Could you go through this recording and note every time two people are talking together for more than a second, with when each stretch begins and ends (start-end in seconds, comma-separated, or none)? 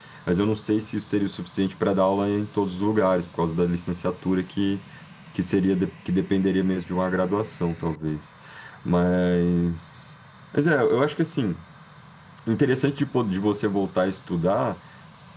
none